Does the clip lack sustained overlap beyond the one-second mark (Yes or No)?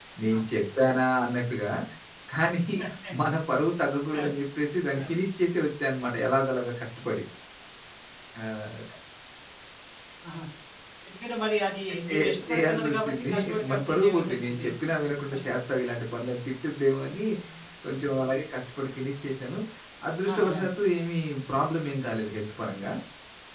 No